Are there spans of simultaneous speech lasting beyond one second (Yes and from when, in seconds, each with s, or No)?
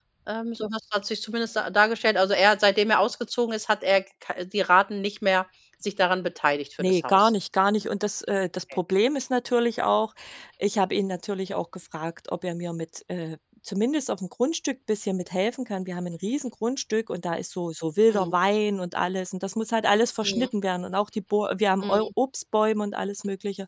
No